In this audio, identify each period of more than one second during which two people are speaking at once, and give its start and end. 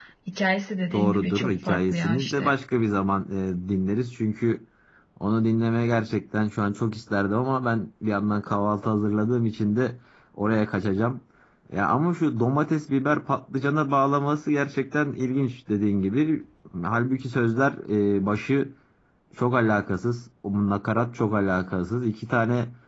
0.9-2.5

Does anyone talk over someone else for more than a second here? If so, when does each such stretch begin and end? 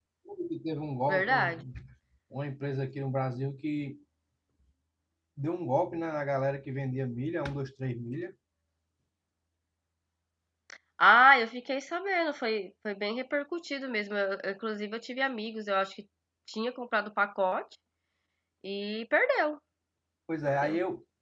none

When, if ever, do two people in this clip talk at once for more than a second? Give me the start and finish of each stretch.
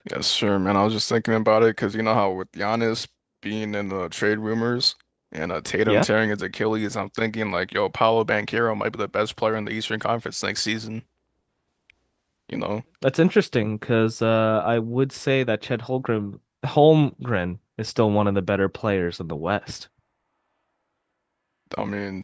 none

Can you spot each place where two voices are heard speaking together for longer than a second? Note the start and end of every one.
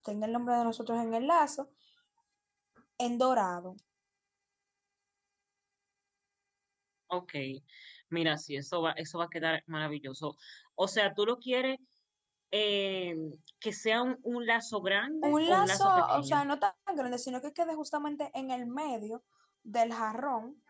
15.2-16.4

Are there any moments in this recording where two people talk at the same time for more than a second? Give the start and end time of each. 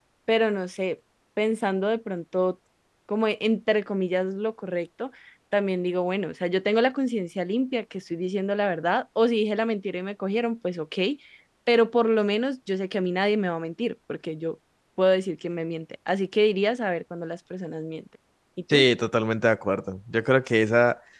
none

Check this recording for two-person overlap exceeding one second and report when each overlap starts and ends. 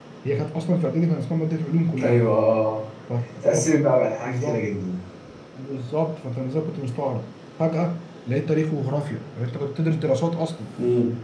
none

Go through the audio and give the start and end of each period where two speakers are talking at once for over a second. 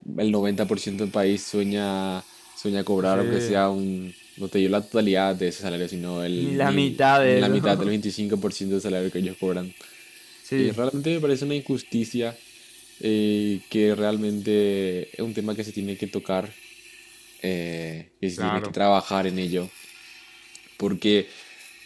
6.4-7.9

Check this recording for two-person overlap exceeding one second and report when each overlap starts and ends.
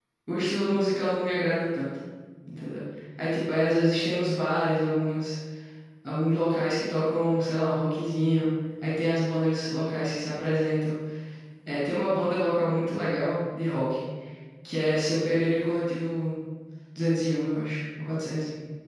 none

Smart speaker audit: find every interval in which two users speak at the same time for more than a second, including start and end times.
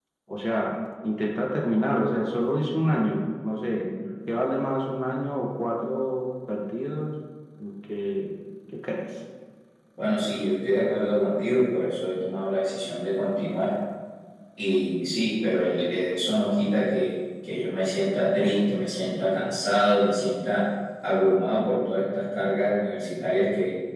none

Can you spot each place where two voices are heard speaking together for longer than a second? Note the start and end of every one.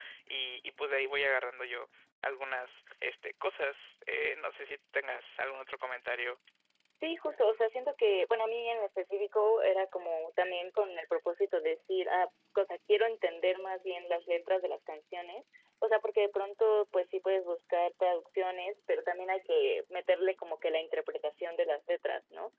none

